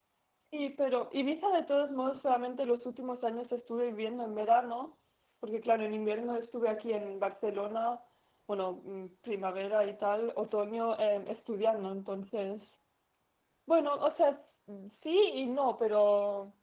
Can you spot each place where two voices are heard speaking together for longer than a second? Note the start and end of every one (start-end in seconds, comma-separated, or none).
none